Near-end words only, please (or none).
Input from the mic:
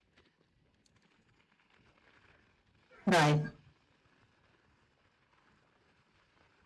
right.